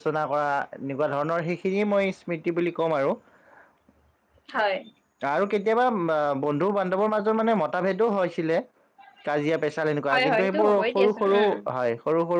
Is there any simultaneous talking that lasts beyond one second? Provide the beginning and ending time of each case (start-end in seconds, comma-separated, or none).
10.1-11.4